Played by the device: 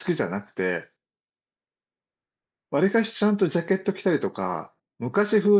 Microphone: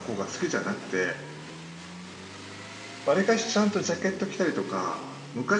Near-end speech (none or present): none